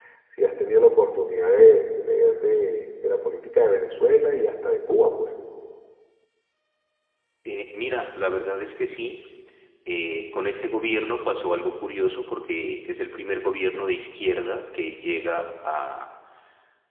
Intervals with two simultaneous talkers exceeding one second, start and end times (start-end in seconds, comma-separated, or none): none